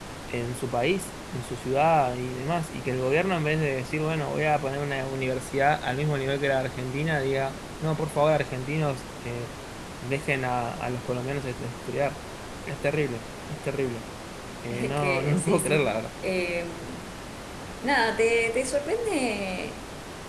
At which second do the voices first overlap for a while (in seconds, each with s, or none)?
14.7 s